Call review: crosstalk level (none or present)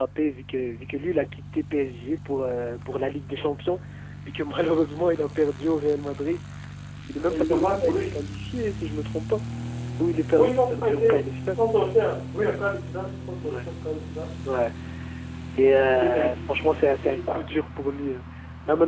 present